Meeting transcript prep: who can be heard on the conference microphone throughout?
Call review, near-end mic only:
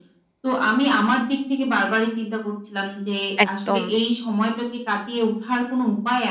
both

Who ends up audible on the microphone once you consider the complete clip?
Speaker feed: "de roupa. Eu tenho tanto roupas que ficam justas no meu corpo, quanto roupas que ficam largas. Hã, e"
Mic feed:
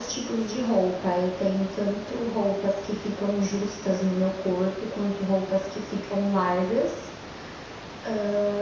echo only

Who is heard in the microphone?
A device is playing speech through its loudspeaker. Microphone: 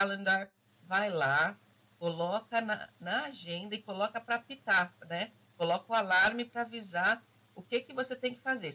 user only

